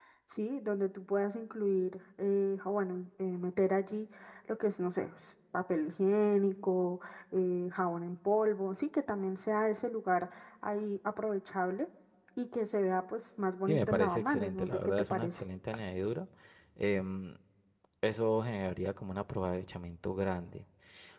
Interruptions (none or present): present